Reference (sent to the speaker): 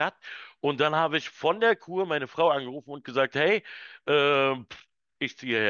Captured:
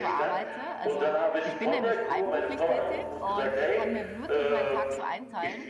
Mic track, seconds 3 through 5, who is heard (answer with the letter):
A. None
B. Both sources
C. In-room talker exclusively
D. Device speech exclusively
B